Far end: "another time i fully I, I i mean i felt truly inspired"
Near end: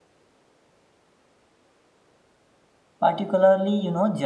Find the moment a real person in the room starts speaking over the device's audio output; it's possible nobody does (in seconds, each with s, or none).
3.0 s